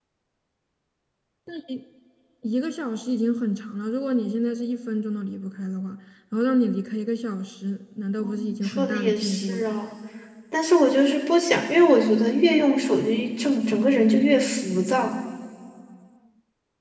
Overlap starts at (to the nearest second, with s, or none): 8 s